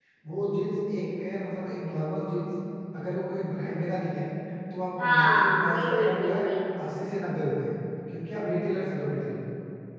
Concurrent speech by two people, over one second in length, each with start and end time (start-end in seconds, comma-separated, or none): 5.0-6.4